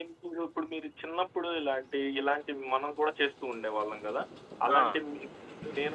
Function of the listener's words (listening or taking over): listening